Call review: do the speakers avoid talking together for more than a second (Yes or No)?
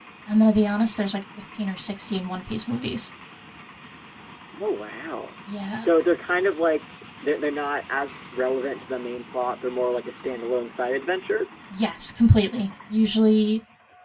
Yes